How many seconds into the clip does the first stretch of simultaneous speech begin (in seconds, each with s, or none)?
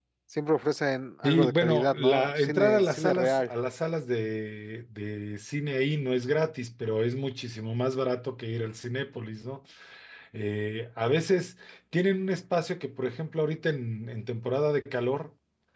1.2 s